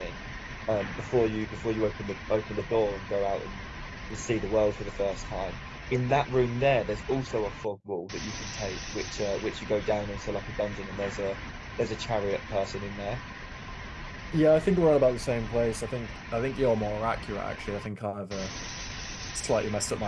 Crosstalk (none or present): none